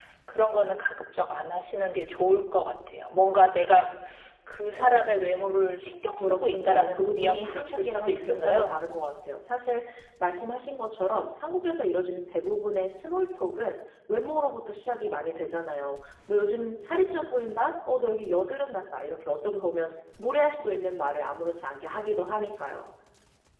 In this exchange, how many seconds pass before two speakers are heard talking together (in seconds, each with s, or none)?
6.2 s